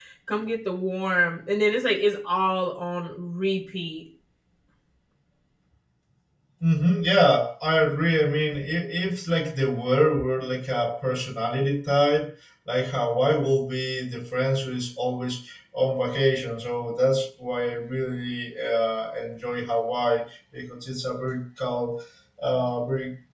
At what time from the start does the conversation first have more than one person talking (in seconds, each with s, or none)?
none